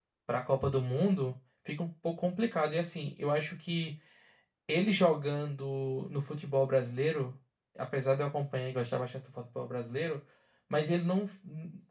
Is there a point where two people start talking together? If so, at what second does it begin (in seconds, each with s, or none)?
none